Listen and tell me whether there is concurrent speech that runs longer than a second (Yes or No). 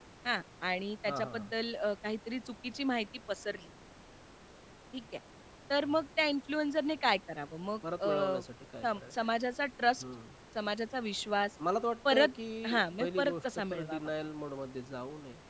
Yes